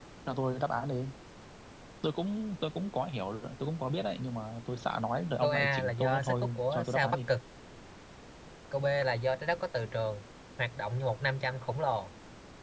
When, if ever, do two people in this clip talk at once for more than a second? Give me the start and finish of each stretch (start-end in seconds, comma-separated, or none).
5.4-7.3